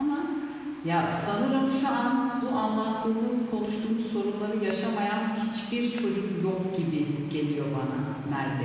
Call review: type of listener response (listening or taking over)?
taking over